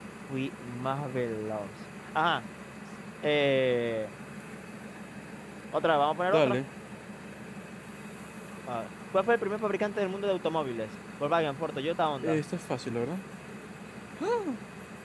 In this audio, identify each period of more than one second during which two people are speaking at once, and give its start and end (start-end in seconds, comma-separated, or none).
none